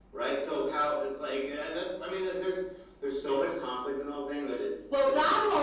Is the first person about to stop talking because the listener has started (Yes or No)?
Yes